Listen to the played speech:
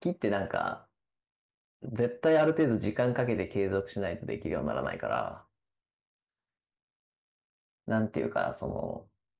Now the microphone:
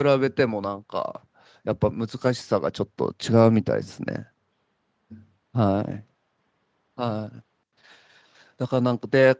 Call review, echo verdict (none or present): none